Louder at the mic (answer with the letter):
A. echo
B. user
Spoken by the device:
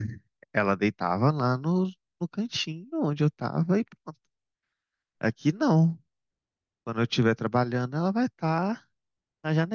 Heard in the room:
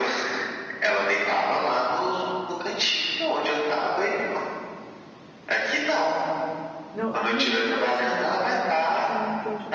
A